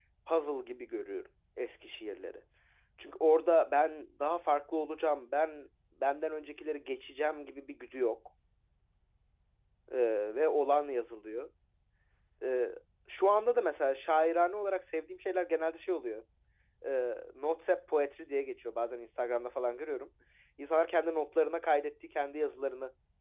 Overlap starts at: none

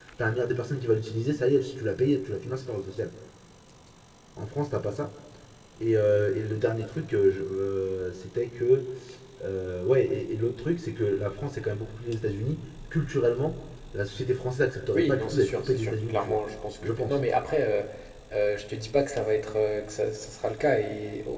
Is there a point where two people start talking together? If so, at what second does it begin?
14.9 s

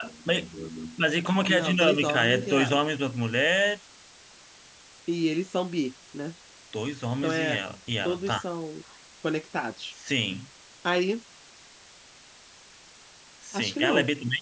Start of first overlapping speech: 1.5 s

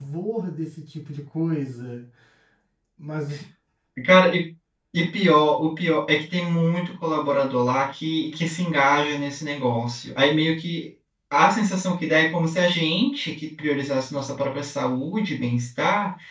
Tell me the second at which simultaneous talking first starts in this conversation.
none

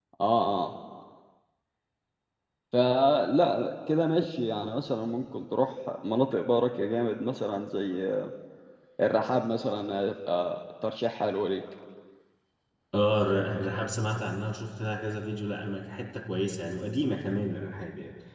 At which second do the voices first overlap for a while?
none

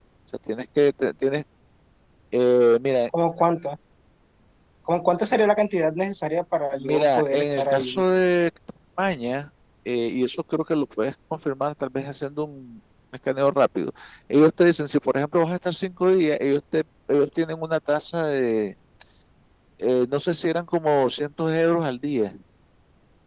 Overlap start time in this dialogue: 6.7 s

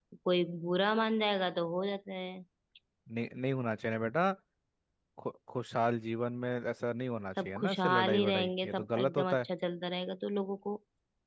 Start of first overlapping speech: 7.4 s

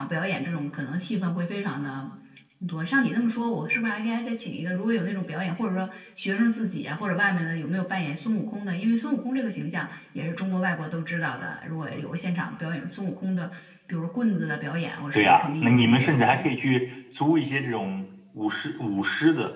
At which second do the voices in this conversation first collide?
15.1 s

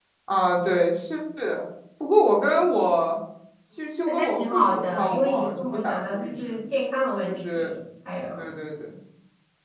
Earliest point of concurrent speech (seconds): 4.1 s

